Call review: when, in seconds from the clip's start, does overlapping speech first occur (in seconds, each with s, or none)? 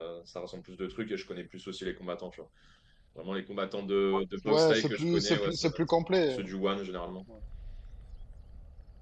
4.4 s